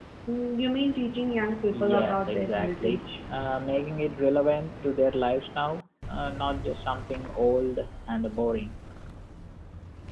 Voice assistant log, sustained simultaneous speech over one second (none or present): present